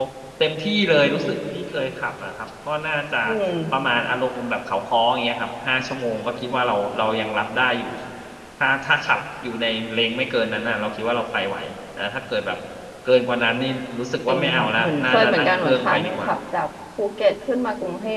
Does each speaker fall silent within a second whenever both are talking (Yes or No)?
No